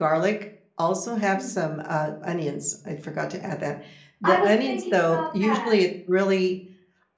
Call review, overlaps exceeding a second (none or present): present